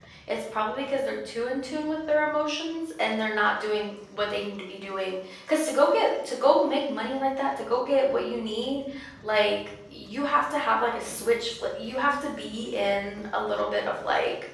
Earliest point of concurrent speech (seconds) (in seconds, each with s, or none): none